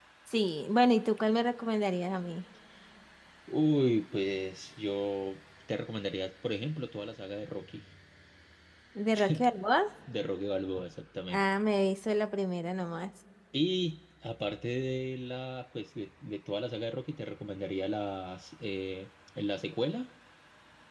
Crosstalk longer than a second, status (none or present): none